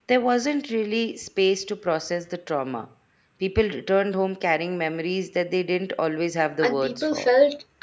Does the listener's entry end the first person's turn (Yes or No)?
Yes